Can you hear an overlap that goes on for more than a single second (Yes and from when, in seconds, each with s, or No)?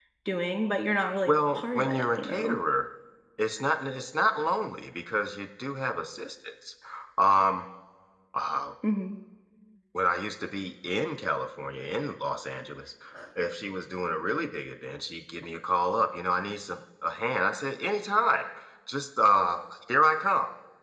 Yes, from 1.3 s